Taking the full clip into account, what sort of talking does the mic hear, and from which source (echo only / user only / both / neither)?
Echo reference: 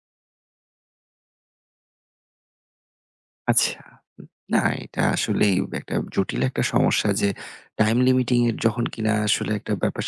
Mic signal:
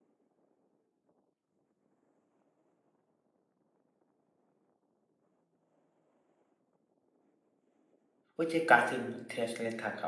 user only